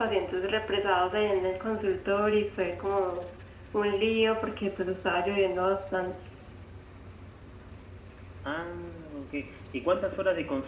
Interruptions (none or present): none